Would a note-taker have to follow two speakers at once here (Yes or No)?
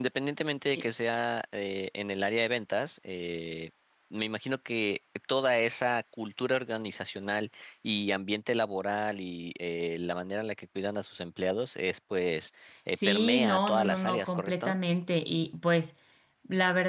Yes